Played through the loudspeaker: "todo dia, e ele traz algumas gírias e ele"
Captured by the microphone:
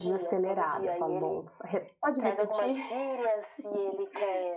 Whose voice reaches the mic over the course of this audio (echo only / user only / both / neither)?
both